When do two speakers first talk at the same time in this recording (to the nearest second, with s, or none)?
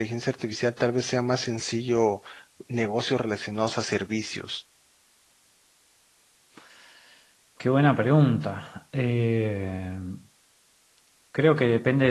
none